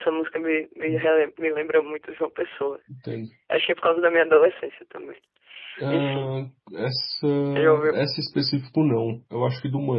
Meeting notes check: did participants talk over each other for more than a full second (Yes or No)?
No